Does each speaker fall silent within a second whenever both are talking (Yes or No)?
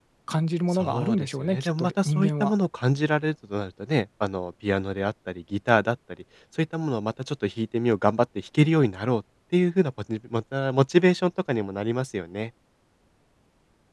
No